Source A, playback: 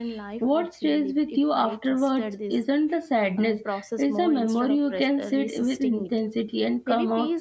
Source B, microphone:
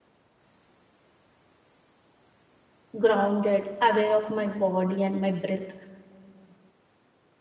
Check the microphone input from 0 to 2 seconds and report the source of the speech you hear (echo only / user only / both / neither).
neither